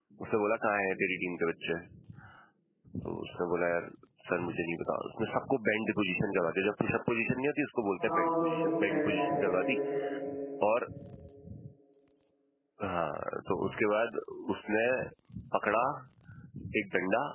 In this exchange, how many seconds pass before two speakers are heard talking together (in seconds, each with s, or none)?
8.0 s